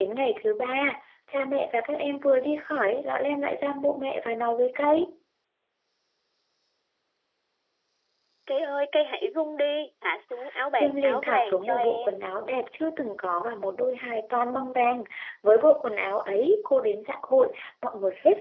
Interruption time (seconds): 10.7 s

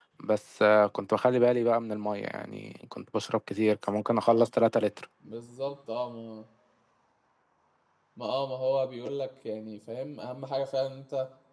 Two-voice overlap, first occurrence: none

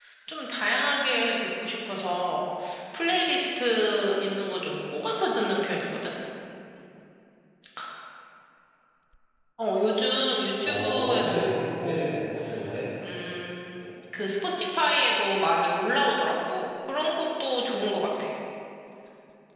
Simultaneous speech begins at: 10.6 s

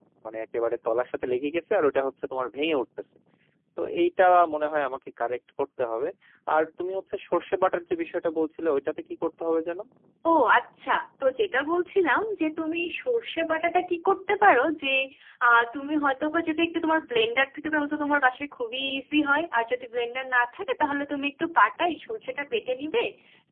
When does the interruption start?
none

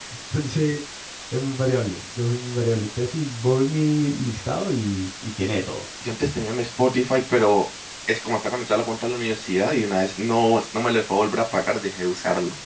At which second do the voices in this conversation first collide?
none

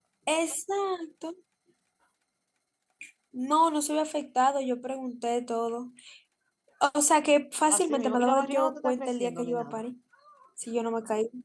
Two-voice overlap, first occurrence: 7.7 s

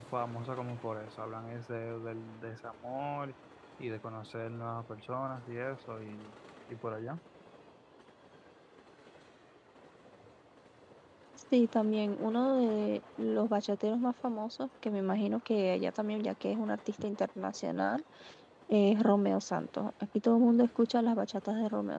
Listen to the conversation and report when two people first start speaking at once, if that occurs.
none

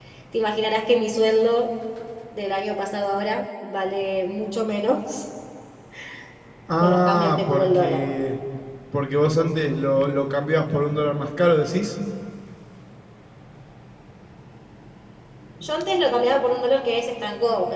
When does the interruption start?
6.8 s

